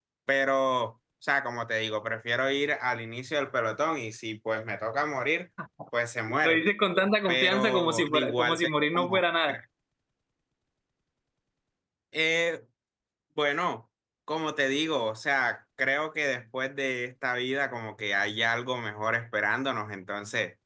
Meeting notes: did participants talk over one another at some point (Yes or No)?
Yes